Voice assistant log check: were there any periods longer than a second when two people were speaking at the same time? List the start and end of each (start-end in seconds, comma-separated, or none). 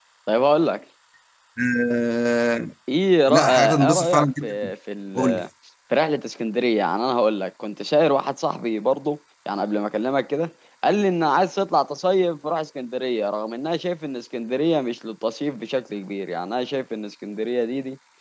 3.3-4.6